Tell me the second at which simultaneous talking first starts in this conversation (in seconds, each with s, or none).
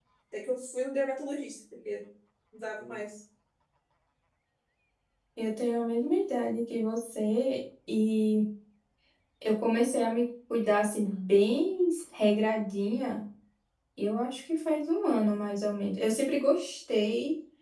none